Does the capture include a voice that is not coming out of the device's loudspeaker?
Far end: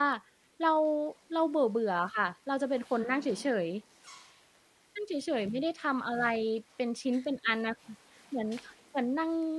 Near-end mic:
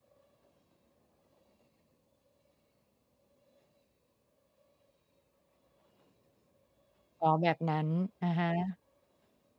Yes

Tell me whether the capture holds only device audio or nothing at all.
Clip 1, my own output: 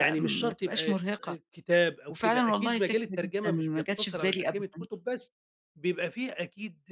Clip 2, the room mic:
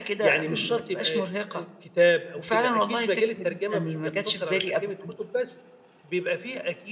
Yes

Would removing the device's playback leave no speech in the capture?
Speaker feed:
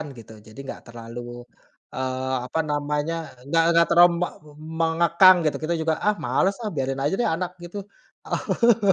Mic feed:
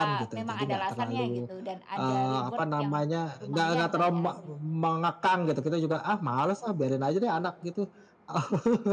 No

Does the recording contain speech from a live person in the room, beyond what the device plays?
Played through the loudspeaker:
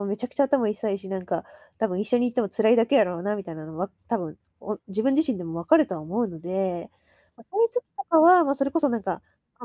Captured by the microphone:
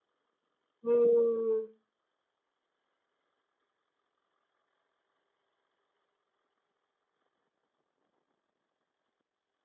Yes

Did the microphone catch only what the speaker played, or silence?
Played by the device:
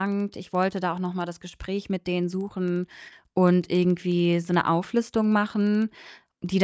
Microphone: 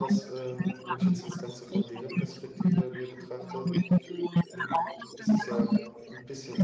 No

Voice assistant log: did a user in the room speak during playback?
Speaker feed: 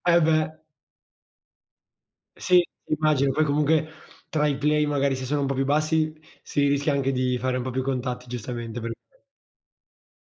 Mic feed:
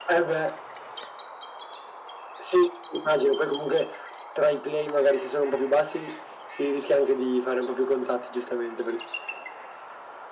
No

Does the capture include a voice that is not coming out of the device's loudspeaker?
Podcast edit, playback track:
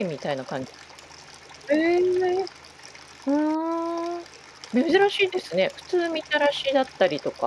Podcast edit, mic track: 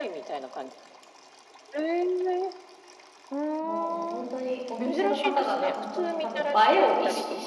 Yes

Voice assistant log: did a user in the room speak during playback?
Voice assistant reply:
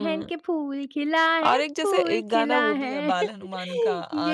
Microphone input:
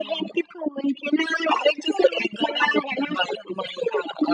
No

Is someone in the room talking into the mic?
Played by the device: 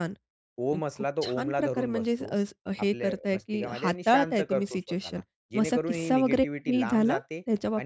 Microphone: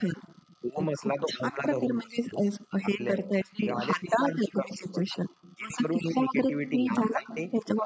No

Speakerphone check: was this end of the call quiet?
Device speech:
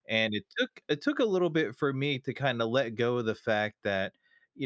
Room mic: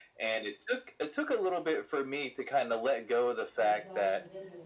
No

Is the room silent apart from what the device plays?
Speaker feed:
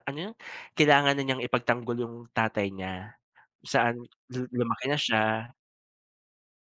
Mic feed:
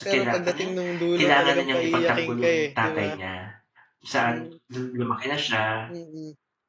No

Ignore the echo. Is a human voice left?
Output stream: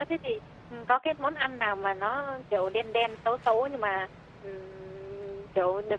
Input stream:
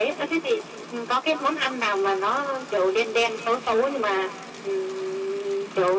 No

